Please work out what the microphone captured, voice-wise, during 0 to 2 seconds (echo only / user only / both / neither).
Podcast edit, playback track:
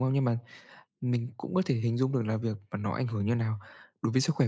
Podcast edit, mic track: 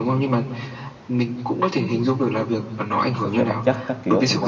echo only